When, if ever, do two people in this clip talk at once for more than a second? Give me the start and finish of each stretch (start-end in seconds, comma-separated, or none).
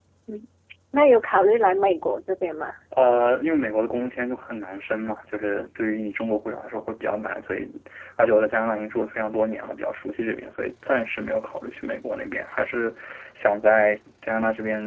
none